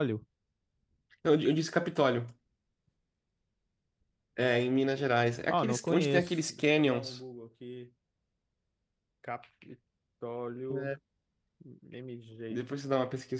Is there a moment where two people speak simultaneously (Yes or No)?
Yes